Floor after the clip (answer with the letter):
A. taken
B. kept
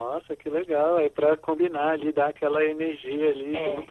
A